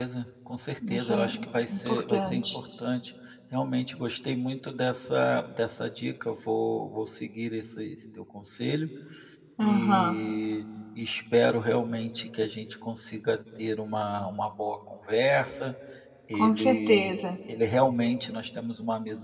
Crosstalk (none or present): present